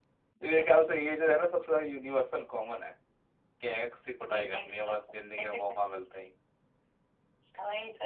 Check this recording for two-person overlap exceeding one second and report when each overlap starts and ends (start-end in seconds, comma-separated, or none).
4.3-5.8